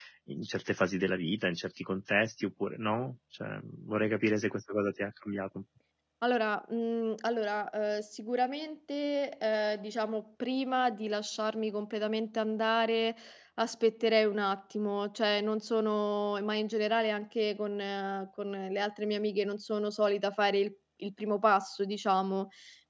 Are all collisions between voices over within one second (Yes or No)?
Yes